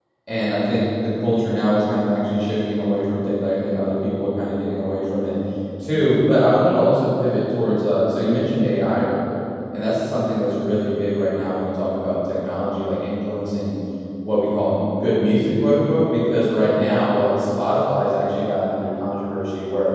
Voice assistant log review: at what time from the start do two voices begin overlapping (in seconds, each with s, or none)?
none